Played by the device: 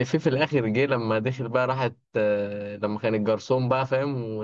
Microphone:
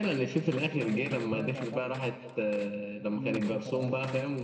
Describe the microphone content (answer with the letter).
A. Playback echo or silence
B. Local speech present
B